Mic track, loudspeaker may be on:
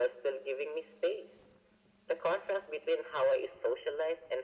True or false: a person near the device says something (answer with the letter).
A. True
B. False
B